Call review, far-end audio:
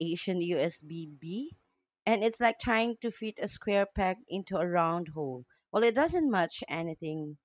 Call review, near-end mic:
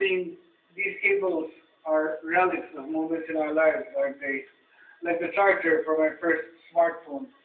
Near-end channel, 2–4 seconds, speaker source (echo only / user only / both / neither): user only